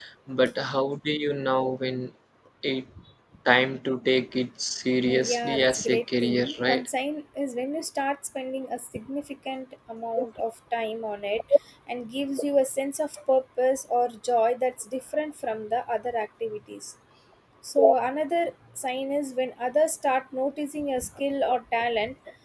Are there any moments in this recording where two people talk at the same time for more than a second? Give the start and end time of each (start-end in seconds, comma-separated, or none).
5.0-6.9